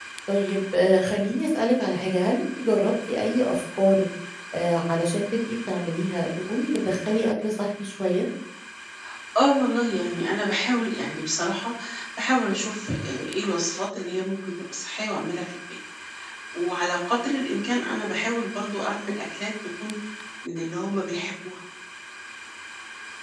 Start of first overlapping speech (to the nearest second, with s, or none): none